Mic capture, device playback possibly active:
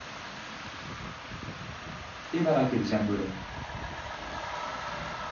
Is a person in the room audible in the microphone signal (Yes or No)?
Yes